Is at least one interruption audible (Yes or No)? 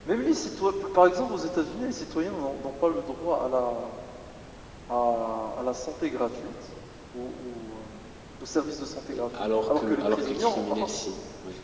Yes